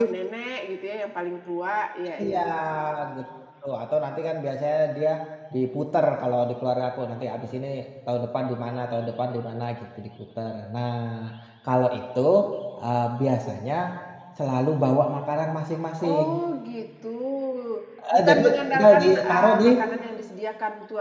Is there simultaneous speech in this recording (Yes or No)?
Yes